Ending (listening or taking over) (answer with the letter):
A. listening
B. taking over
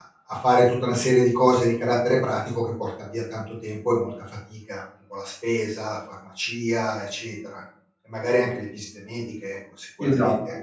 B